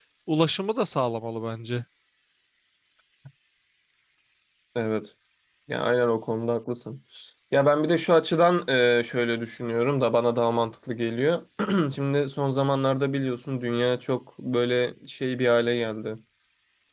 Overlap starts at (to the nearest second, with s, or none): none